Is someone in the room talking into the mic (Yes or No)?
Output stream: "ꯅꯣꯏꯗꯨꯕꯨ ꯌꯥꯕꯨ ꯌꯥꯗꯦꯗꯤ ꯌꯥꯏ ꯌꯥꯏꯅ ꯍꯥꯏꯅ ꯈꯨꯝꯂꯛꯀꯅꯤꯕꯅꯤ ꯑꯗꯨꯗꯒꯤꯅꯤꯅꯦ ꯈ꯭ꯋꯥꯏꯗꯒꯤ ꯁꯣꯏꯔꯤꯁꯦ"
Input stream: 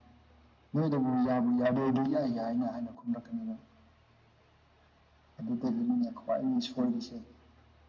No